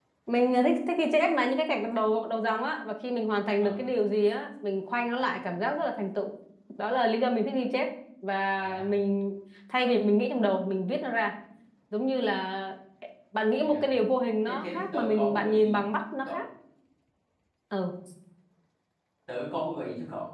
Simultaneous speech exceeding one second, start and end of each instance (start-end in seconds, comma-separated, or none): 14.5-15.7